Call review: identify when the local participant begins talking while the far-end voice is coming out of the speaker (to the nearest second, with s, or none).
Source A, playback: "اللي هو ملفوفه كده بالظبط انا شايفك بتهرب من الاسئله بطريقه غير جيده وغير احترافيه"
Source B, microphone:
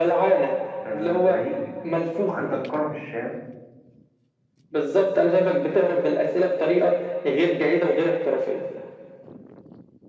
1 s